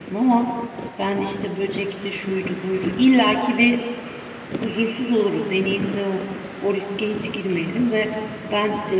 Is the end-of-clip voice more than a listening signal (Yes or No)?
No